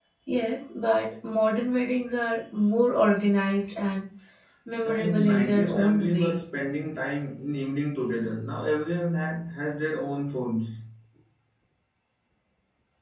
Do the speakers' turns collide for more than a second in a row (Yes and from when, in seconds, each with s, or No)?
Yes, from 4.8 s